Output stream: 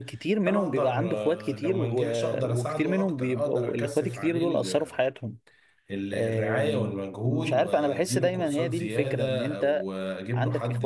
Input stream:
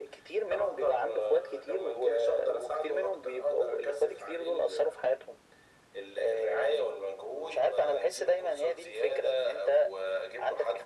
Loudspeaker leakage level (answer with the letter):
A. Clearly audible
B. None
A